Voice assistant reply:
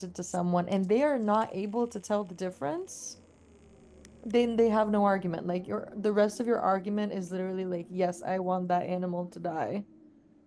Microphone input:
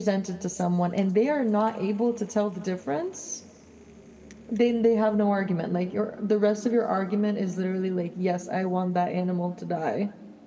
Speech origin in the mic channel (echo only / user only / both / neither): echo only